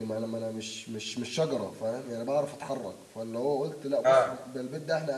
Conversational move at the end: listening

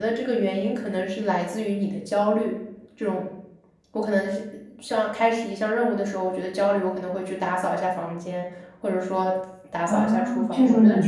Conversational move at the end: taking over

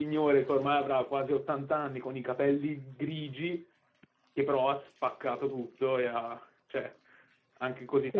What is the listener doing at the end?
taking over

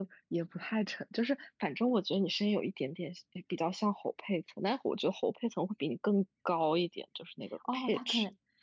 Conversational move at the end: taking over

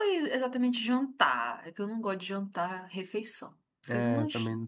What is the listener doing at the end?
taking over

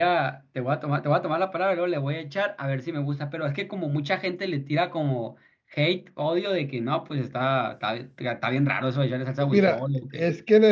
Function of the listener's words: taking over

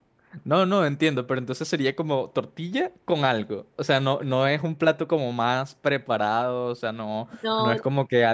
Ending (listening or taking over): listening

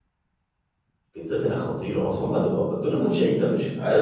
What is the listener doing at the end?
taking over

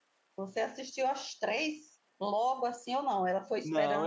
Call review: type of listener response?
taking over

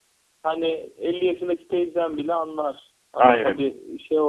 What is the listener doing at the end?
listening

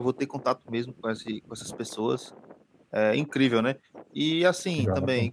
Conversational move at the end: listening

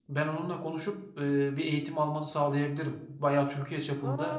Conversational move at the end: listening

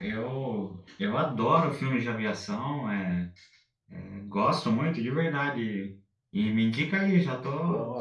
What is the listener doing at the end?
taking over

